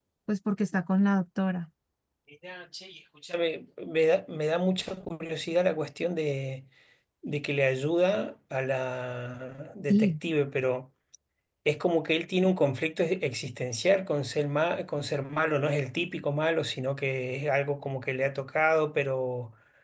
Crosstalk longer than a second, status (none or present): none